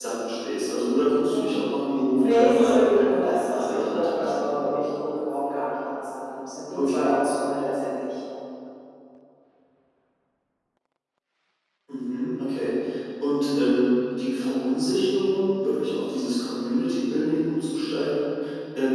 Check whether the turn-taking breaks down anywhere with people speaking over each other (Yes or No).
Yes